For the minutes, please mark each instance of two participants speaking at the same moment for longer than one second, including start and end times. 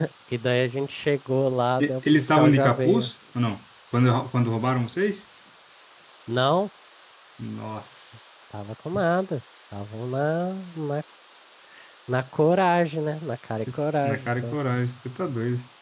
1.8-3.1

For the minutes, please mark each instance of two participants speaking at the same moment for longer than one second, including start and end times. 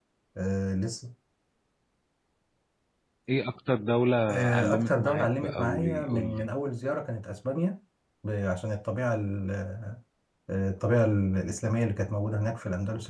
4.3-6.5

